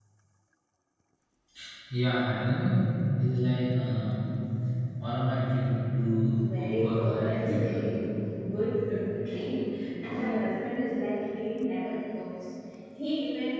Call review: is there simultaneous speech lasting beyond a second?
Yes, from 6.4 s

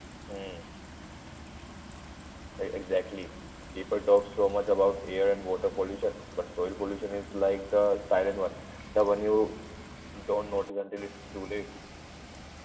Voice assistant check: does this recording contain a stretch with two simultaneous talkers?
No

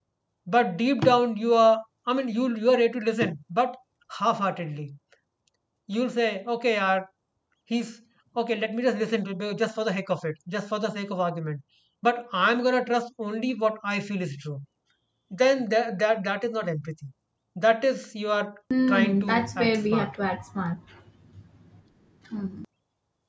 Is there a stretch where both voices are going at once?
Yes, from 18.7 s

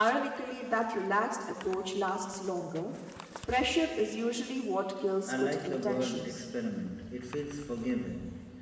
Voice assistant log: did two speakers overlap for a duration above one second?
Yes, from 5.2 s

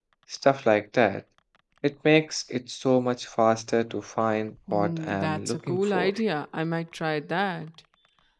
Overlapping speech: Yes, from 4.7 s

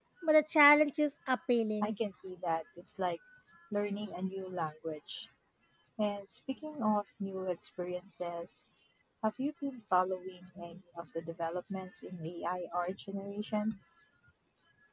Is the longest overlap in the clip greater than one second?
No

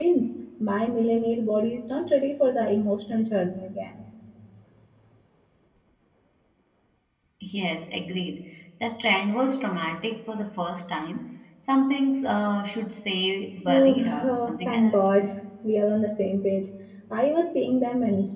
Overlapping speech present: Yes, from 13.7 s

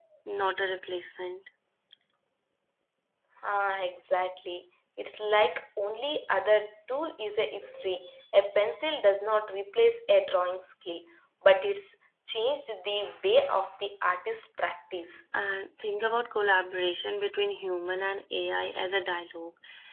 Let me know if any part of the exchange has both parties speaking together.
No

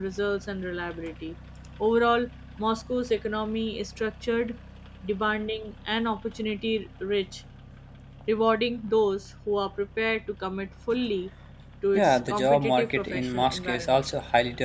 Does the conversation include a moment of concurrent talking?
Yes, from 12.0 s

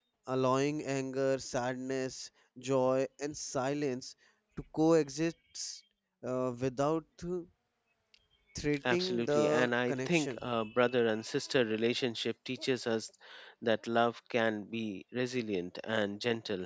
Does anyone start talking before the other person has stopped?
Yes, from 8.9 s

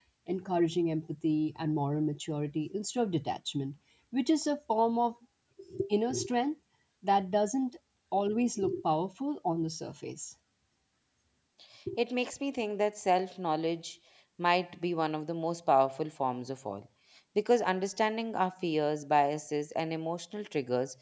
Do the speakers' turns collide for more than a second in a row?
No

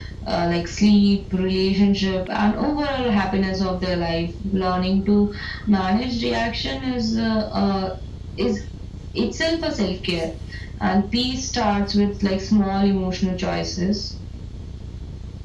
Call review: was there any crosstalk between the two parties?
No

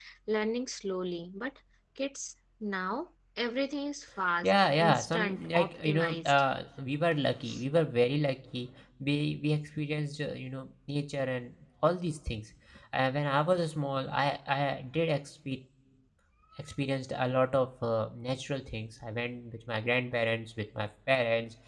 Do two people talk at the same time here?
Yes, from 4.4 s

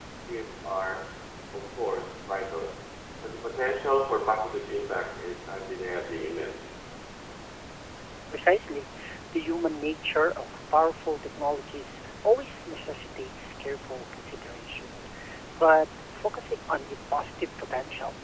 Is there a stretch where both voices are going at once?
No

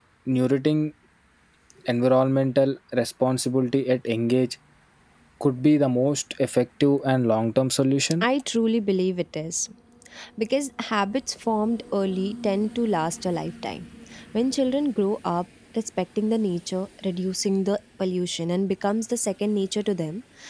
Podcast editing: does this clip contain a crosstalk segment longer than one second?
No

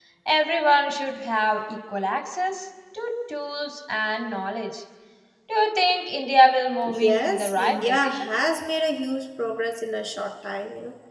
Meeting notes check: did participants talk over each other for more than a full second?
Yes, from 6.9 s

